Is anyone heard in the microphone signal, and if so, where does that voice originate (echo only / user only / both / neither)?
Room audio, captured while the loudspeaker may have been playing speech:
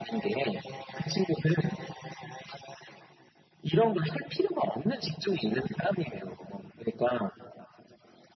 echo only